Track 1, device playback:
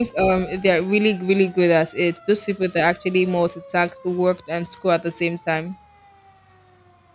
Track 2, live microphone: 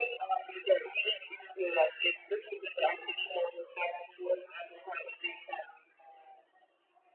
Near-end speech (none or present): none